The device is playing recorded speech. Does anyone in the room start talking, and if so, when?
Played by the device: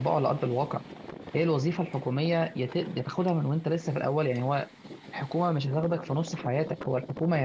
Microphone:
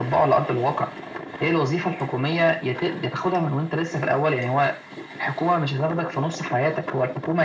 none

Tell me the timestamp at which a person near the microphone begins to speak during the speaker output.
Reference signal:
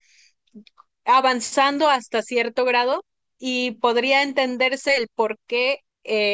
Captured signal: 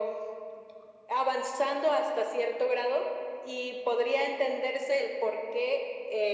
none

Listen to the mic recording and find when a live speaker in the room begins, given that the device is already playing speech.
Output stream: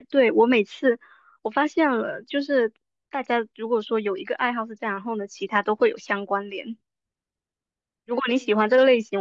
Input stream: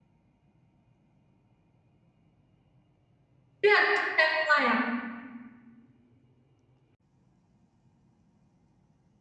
3.6 s

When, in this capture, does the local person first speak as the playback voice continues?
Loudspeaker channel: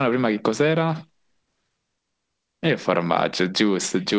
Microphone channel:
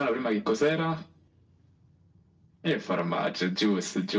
none

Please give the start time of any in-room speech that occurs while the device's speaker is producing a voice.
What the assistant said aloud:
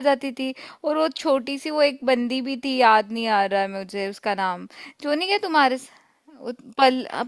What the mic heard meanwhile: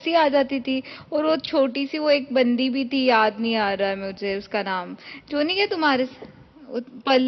none

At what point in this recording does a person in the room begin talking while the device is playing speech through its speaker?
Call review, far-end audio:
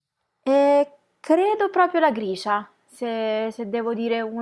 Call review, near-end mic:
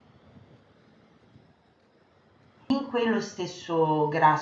2.7 s

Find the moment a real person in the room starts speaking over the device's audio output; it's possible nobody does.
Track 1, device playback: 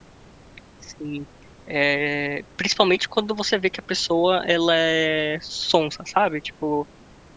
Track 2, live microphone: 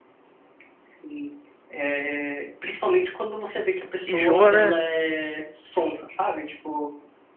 4.0 s

